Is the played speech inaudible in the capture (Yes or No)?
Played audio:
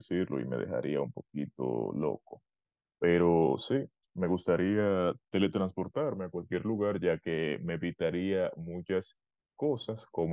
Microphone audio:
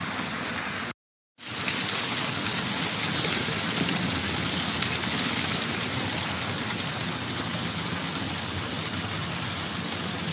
Yes